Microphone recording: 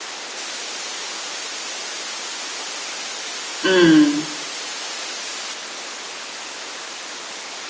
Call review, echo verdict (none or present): none